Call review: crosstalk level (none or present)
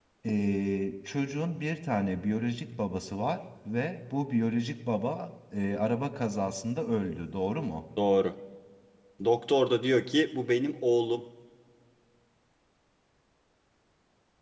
none